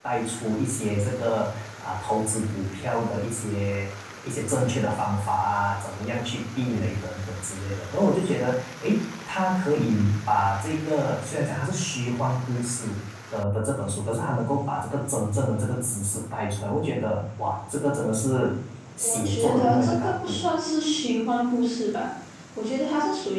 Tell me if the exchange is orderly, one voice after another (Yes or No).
No